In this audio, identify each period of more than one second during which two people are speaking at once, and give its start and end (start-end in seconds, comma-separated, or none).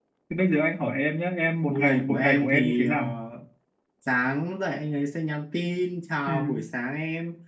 1.7-3.0